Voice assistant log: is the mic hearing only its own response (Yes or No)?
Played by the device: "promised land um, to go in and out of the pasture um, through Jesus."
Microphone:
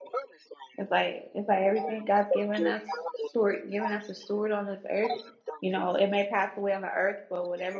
No